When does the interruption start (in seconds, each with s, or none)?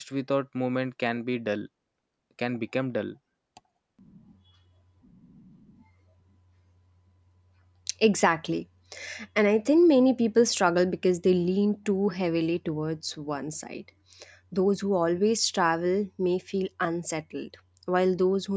none